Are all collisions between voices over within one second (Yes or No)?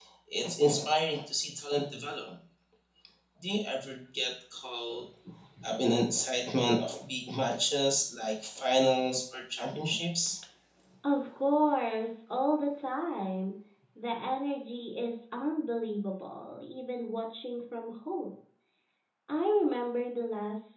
Yes